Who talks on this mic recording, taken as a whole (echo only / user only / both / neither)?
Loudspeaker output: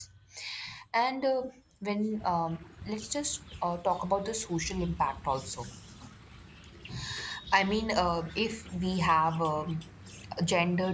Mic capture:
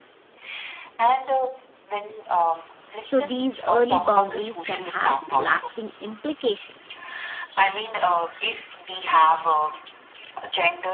both